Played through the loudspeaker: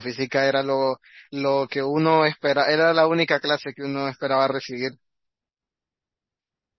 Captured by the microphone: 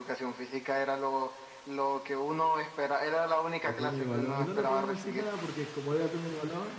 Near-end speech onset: 3.6 s

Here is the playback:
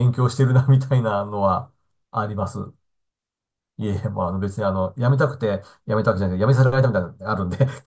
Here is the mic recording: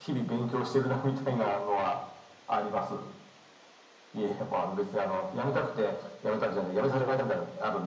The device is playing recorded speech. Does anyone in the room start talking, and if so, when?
1.2 s

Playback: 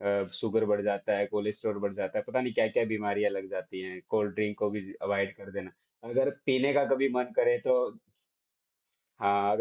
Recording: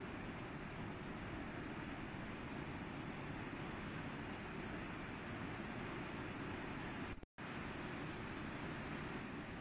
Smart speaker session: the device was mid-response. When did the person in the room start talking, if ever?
none

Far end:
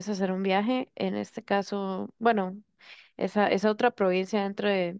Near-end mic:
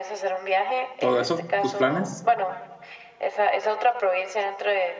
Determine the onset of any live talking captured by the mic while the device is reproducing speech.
1.0 s

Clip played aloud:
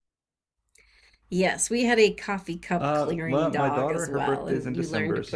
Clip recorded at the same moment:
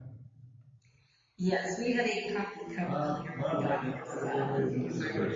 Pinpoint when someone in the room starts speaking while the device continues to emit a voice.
none

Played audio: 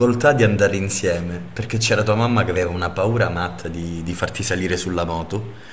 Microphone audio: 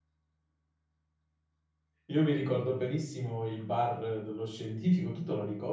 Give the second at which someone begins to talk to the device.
2.1 s

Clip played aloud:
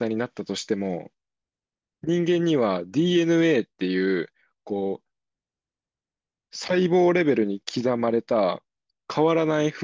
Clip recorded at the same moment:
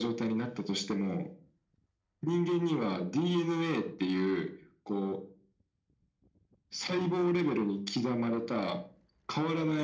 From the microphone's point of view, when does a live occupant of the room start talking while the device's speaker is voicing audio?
none

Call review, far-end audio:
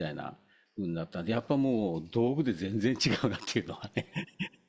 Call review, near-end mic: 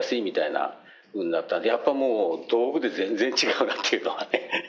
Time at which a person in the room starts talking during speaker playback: none

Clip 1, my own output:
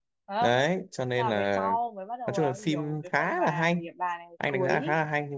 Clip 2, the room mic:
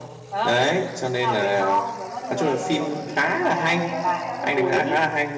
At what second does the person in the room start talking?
2.2 s

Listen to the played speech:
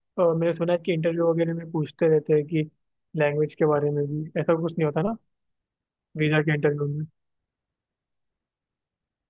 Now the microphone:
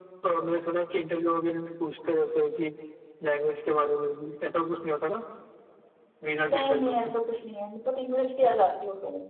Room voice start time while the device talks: 6.5 s

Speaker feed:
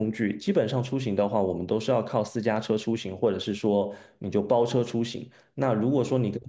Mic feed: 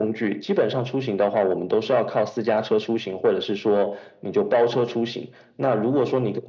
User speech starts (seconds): none

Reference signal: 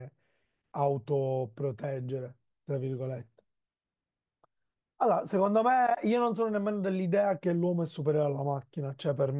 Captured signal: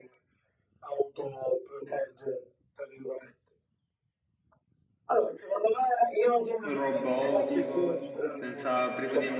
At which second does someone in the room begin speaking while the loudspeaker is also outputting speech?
6.6 s

